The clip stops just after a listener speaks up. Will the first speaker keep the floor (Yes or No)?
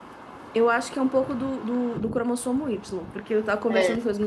Yes